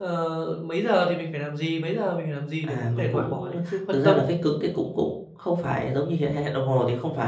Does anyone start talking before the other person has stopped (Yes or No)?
Yes